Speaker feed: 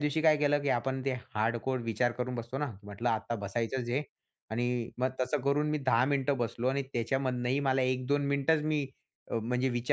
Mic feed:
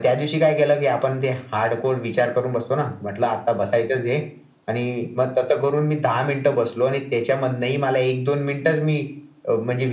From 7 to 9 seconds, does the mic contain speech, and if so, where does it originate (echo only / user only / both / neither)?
echo only